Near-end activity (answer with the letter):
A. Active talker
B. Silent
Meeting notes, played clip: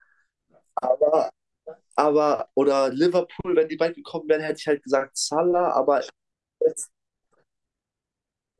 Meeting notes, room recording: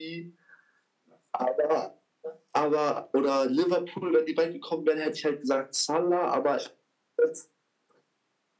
B